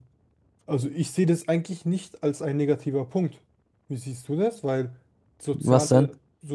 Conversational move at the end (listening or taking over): listening